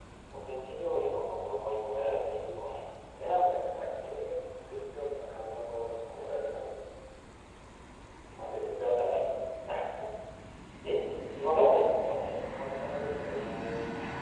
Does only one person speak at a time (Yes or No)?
Yes